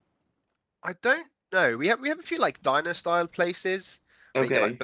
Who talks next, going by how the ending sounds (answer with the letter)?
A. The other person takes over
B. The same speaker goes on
B